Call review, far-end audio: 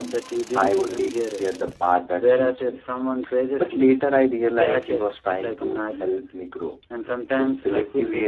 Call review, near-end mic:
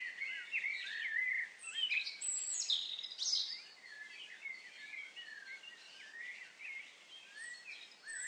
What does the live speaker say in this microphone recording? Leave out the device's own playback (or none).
none